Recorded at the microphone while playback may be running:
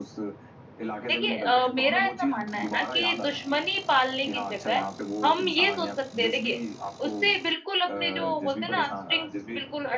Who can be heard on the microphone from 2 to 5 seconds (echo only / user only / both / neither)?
both